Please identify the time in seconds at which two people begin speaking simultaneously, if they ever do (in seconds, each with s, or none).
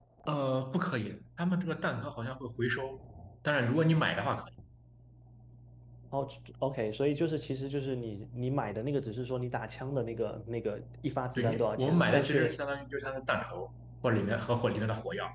11.4 s